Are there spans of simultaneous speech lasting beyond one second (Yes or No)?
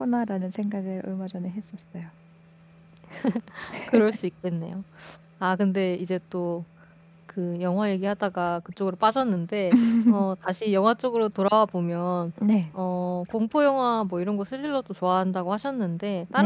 No